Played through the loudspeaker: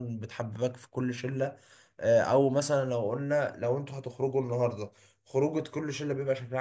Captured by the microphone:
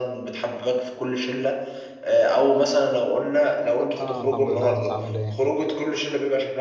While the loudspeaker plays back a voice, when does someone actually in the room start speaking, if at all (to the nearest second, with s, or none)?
4 s